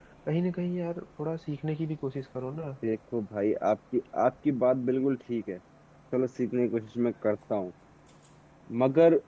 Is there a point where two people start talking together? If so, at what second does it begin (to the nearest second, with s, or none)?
none